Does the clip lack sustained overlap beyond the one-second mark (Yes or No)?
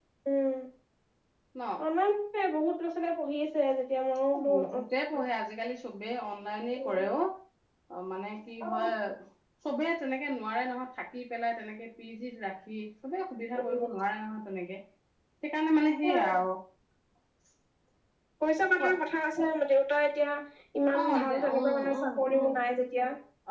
No